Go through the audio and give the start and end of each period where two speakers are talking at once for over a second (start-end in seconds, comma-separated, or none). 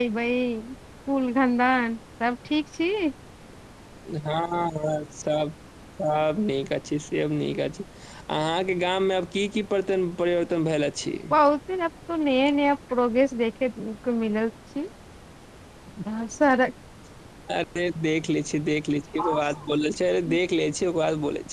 none